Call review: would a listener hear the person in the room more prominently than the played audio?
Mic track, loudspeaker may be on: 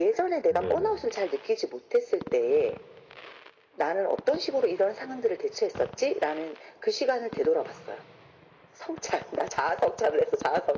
No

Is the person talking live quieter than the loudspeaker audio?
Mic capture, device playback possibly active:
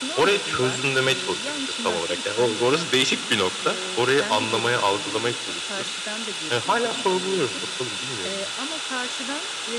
Yes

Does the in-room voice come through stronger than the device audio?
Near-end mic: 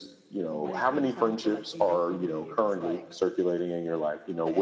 No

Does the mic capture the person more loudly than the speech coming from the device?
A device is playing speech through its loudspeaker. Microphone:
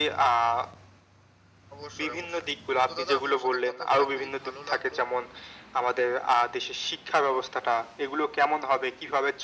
No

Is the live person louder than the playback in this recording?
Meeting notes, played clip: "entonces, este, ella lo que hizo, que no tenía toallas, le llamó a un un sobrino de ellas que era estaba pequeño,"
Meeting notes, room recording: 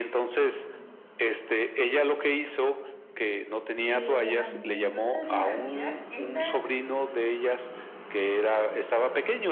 No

